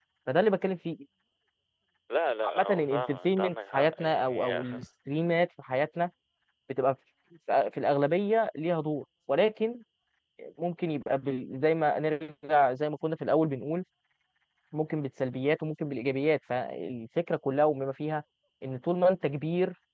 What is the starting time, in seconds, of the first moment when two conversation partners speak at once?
2.4 s

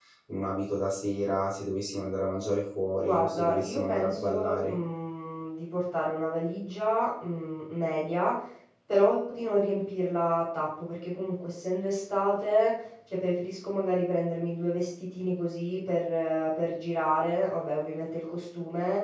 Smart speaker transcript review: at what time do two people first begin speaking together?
3.0 s

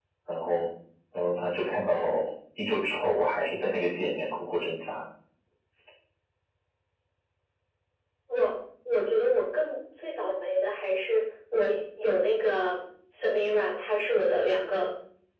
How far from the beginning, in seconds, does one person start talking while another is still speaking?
none

